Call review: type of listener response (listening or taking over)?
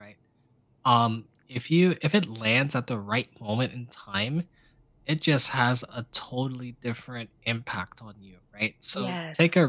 listening